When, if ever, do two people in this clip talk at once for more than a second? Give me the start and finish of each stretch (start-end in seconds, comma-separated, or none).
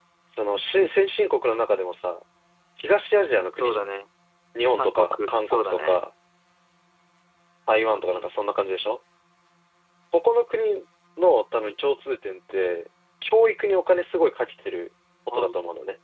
4.8-6.0